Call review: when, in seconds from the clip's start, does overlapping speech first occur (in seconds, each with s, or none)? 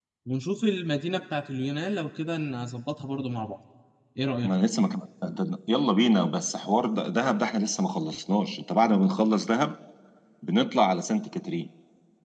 none